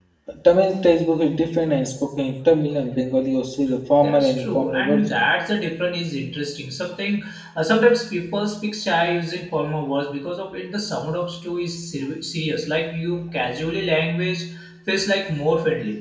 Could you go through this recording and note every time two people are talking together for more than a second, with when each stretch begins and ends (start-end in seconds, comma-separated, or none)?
4.0-5.3